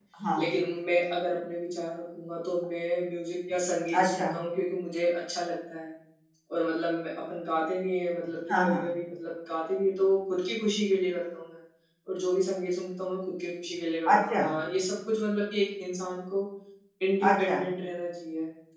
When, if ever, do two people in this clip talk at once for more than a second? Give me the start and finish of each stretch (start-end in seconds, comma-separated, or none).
none